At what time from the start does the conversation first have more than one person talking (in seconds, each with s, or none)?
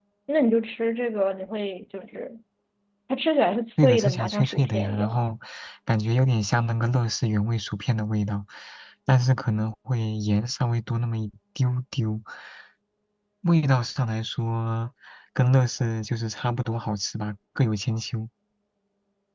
3.8 s